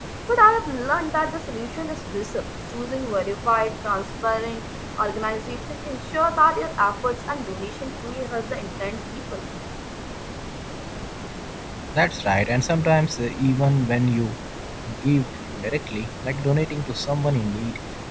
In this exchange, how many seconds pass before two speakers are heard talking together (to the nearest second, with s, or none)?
none